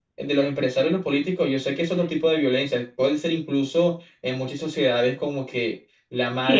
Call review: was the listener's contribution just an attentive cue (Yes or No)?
No